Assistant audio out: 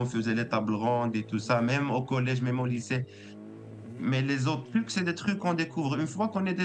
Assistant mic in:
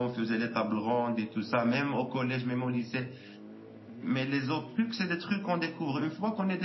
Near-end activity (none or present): none